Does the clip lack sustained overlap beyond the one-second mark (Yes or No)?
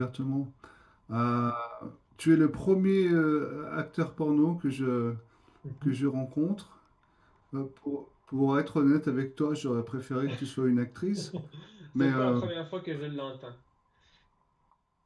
Yes